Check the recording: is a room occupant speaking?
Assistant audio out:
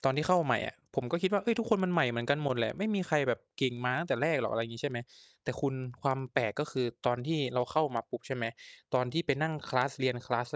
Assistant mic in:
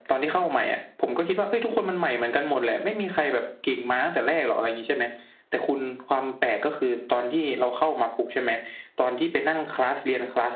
No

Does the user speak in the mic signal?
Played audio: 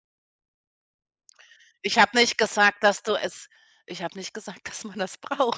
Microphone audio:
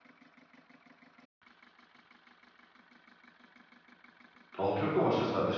Yes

